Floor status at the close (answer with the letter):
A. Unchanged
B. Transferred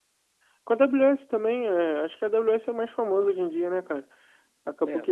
A